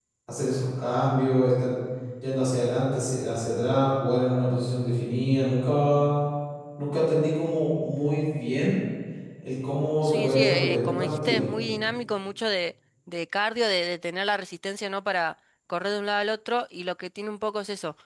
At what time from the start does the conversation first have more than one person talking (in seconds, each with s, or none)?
10.0 s